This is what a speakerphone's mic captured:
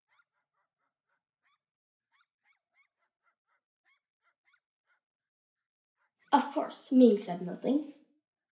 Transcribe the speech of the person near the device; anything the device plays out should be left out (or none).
Of course, Ming said nothing.